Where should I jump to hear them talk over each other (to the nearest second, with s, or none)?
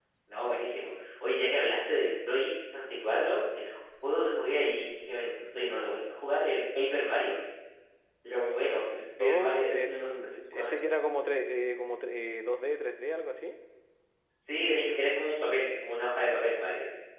9 s